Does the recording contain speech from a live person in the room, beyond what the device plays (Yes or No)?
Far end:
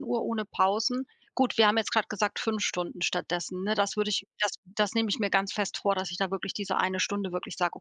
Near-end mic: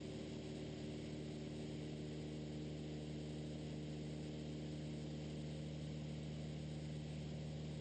No